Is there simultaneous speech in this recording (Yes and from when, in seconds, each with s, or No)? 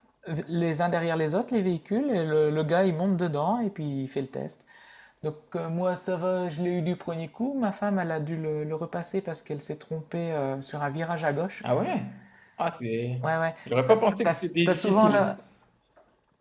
Yes, from 13.9 s